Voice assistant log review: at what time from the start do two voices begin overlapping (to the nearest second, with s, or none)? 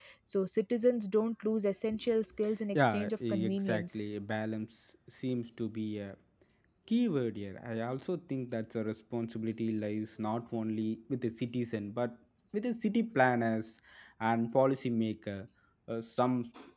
3 s